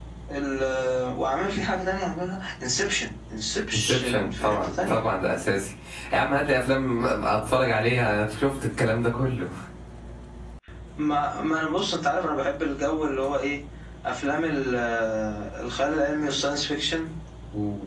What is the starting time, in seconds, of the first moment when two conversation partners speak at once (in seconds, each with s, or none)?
3.7 s